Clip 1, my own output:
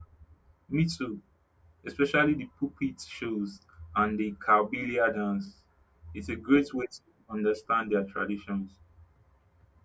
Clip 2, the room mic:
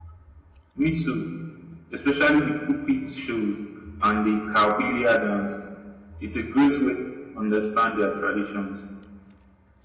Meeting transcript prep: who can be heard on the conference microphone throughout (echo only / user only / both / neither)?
echo only